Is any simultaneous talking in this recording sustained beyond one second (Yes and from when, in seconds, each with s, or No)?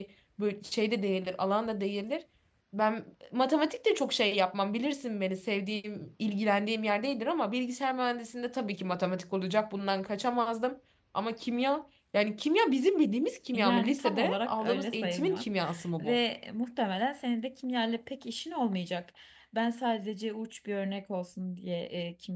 Yes, from 13.5 s